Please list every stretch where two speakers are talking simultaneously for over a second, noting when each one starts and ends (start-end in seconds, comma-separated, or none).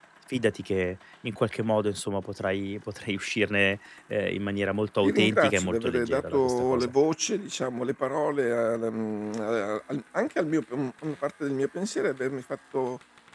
5.0-6.9